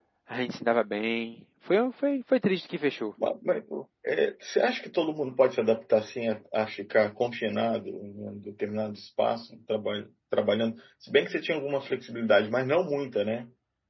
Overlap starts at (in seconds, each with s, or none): none